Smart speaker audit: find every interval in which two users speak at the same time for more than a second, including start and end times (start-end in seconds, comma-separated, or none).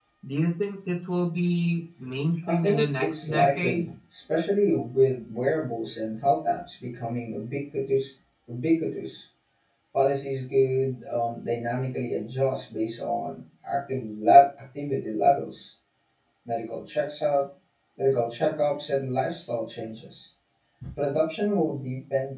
2.5-3.9